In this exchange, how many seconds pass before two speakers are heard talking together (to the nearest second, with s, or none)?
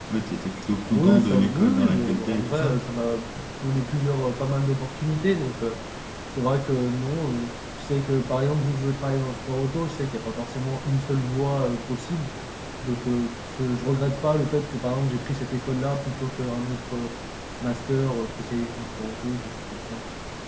1 s